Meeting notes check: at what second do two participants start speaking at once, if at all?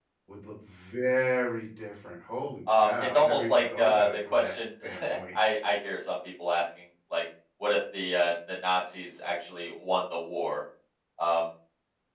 3 s

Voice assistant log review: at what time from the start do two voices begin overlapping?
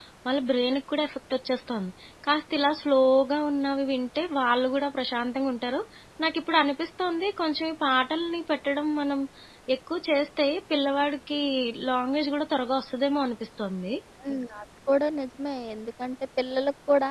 none

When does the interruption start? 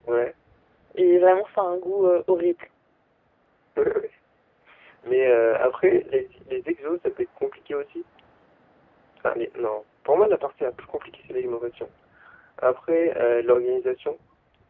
none

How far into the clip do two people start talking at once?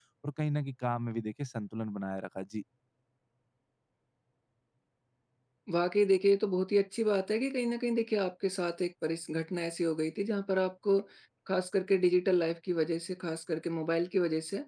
none

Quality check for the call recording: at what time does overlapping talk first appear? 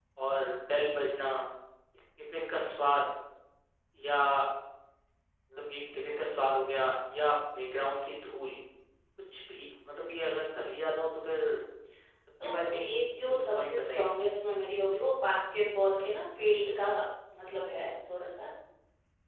12 s

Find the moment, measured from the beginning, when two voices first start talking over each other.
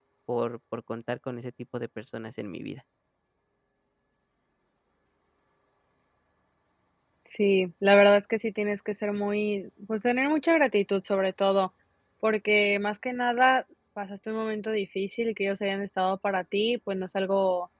none

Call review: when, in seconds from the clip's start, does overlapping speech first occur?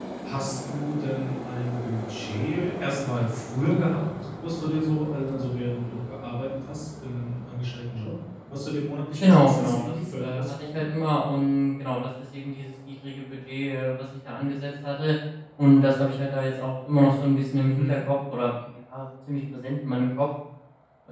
9 s

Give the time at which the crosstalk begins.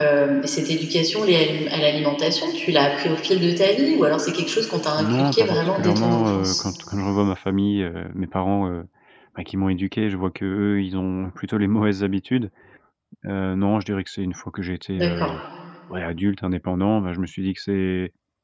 5 s

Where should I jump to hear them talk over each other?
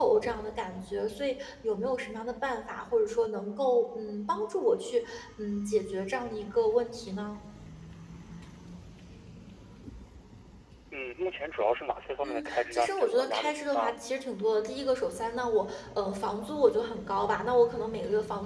12 s

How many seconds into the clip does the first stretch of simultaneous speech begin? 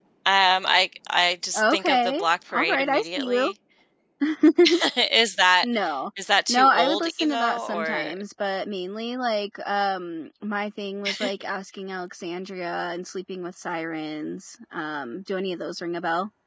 2 s

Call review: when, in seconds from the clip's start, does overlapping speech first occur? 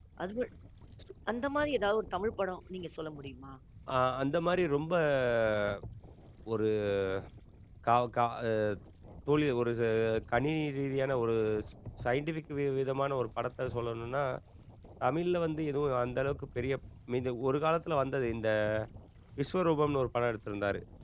none

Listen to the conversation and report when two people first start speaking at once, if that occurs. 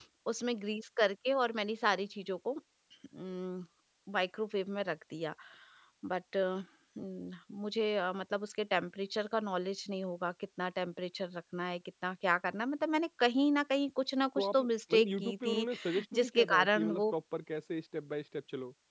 14 s

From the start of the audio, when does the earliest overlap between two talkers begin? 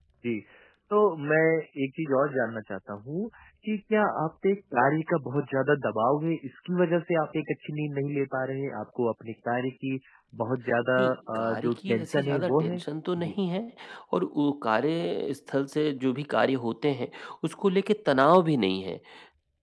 11 s

